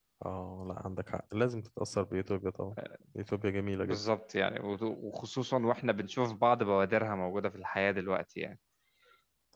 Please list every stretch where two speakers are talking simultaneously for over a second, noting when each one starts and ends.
none

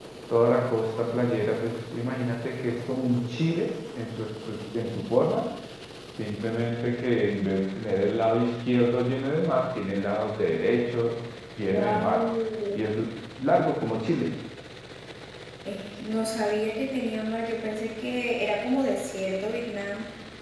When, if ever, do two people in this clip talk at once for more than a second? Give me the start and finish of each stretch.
none

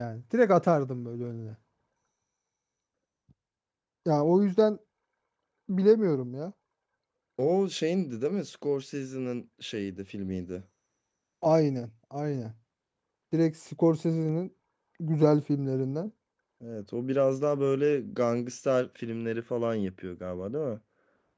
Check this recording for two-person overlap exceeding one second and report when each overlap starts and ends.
none

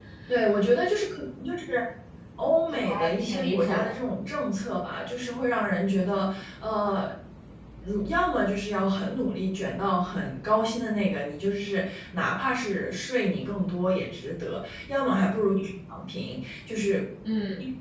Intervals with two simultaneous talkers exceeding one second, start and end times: 2.7-3.9

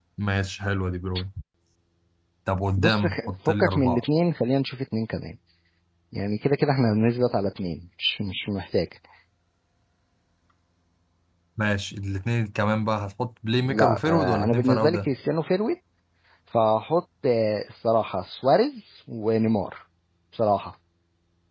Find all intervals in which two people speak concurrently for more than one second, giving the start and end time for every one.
2.8-4.0, 13.6-15.1

